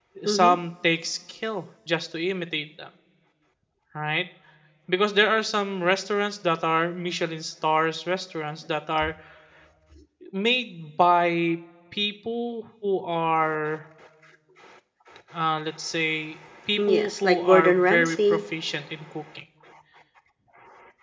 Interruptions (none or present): present